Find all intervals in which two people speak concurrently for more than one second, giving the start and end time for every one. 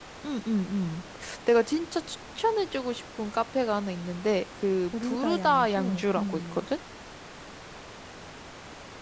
5.0-6.7

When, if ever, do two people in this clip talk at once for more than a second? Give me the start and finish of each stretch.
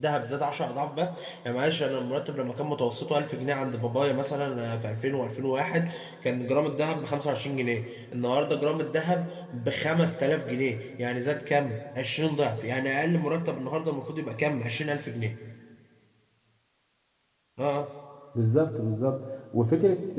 none

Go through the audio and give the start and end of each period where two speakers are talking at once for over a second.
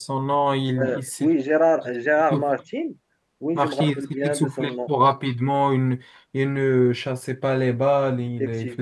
3.5-4.9

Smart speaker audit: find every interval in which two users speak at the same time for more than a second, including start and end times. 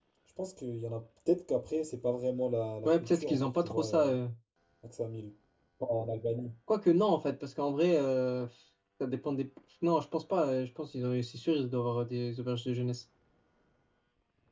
2.9-4.2

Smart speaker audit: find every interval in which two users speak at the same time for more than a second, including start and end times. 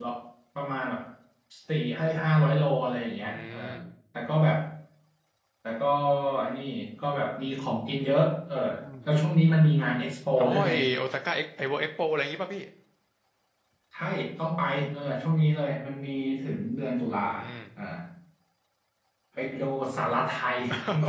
none

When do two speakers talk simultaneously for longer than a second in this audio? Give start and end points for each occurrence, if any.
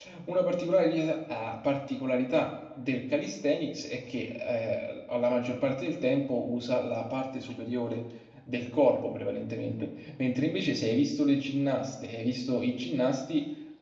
none

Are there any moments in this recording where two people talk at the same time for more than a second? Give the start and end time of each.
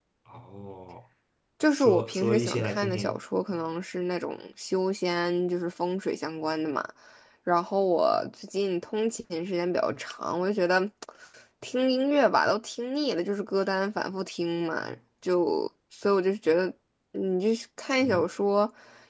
1.8-3.2

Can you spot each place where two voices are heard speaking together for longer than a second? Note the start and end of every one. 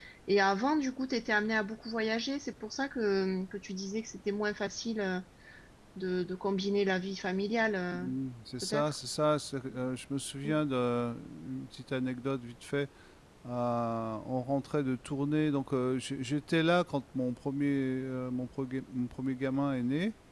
none

